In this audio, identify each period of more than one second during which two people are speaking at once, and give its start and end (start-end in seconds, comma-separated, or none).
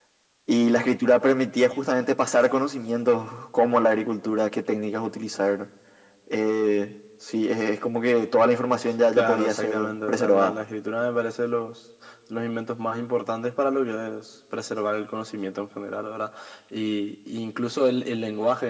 9.1-10.5